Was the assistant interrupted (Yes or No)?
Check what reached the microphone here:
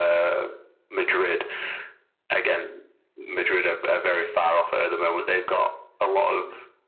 No